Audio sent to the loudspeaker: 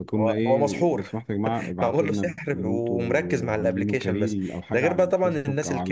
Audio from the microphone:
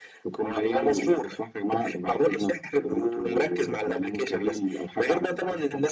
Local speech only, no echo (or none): none